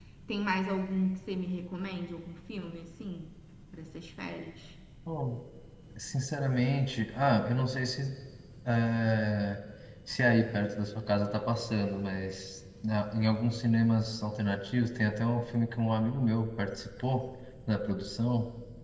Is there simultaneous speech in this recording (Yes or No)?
No